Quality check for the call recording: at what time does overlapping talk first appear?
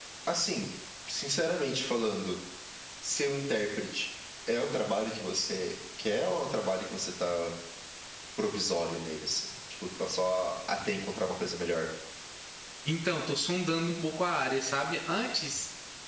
none

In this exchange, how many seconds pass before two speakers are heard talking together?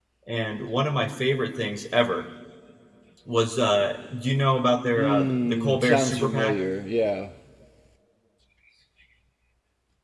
5.0 s

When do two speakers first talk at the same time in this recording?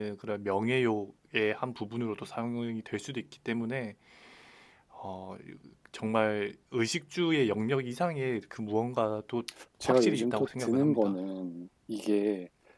9.8 s

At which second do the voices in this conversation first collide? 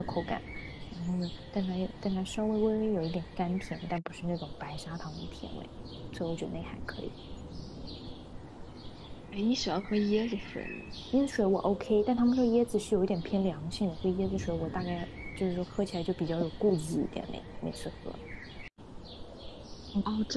none

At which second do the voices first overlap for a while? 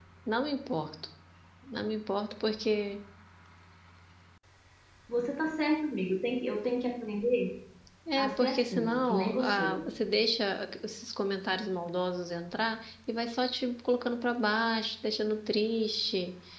8.2 s

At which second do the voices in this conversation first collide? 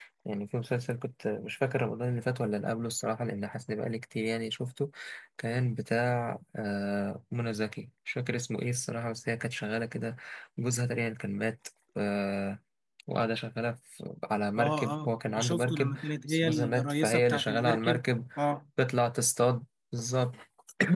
14.6 s

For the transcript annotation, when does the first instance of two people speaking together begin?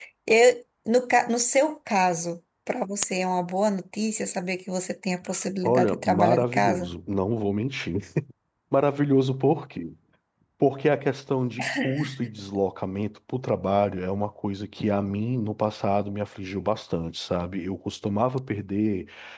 5.6 s

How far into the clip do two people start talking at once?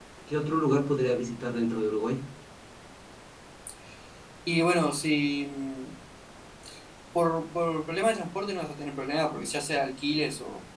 none

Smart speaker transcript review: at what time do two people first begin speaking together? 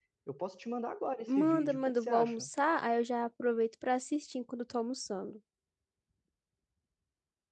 1.3 s

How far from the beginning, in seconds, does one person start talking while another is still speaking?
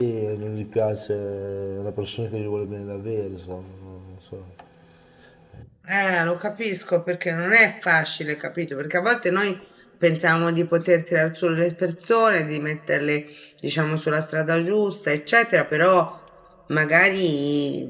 none

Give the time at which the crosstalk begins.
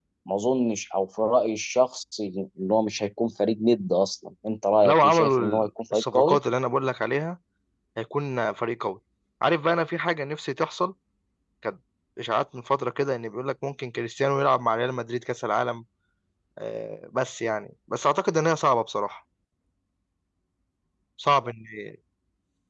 4.8 s

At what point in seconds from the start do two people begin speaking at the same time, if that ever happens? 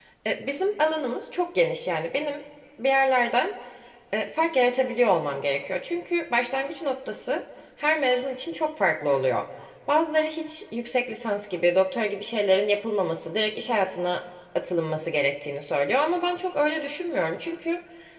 none

